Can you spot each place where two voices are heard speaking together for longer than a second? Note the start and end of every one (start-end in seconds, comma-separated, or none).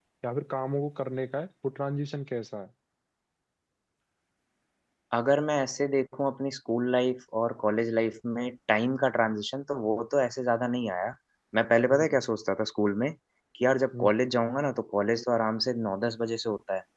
none